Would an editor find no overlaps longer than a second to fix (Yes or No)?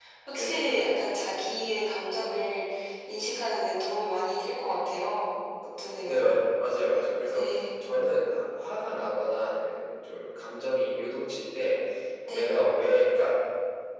Yes